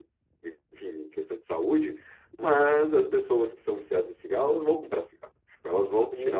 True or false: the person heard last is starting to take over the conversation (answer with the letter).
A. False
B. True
B